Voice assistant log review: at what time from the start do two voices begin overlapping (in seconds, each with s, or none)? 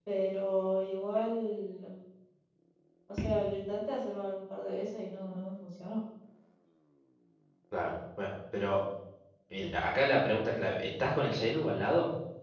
none